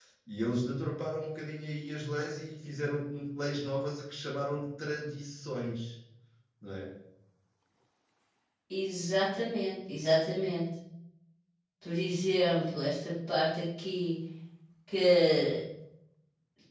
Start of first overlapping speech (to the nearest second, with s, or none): none